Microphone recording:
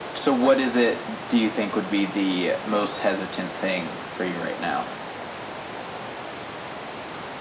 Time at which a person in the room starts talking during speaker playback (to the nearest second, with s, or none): none